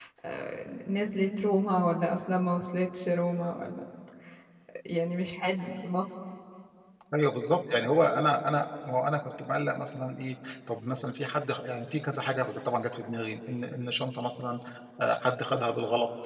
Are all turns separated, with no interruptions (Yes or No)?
Yes